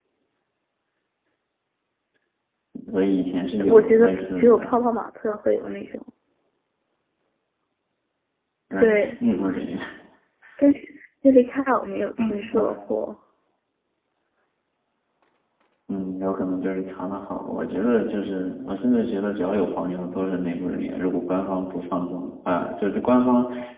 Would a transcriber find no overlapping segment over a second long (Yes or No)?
No